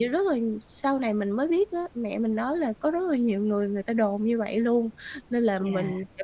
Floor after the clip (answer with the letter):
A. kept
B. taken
A